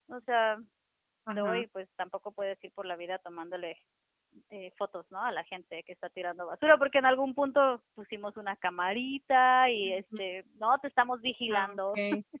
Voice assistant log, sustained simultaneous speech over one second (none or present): none